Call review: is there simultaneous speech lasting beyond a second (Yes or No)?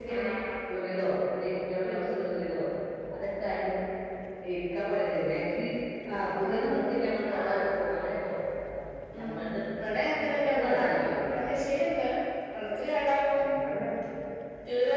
Yes